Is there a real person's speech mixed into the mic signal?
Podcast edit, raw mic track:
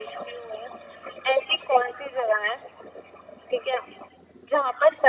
No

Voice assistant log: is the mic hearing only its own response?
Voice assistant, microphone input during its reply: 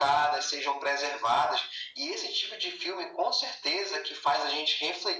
Yes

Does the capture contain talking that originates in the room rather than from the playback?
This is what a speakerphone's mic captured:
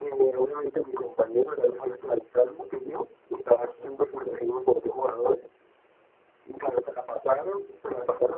No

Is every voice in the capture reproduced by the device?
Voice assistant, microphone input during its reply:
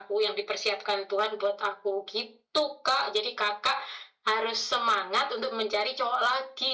Yes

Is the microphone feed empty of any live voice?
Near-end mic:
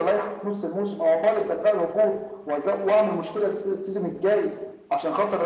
Yes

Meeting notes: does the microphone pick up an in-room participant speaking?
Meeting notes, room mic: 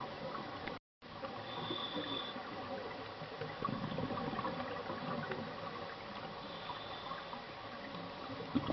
No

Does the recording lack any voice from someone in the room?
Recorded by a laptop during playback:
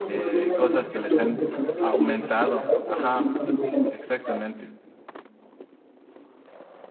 No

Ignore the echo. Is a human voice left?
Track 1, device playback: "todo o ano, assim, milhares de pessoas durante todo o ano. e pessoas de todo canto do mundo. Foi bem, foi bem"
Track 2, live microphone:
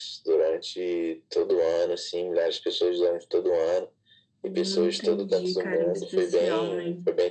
Yes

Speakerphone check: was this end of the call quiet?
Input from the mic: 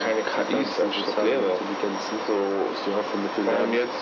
Yes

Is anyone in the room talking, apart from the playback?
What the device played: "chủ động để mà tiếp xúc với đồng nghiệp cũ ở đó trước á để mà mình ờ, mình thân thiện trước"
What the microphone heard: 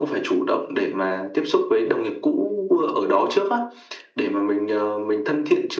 No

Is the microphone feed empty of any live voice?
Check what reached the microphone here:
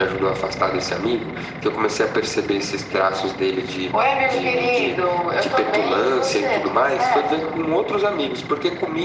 Yes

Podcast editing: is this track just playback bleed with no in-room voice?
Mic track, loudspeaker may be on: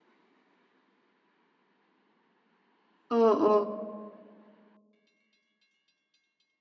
No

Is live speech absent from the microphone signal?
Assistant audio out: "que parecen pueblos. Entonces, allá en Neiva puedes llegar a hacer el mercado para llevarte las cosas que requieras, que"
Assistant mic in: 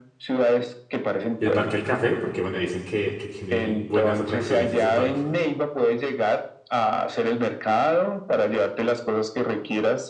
No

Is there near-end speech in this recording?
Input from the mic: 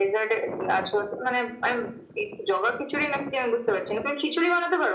No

